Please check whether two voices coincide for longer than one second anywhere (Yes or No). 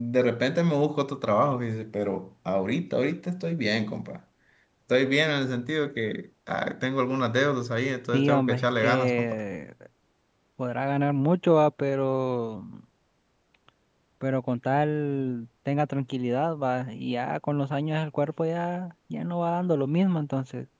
Yes